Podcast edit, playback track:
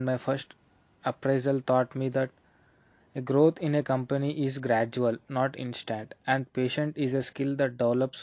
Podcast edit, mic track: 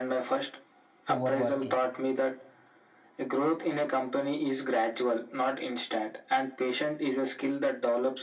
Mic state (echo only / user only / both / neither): both